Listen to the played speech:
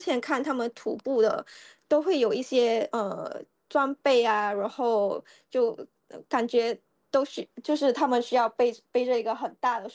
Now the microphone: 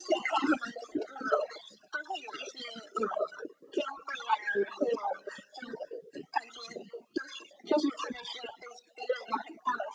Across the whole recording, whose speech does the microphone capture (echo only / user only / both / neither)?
echo only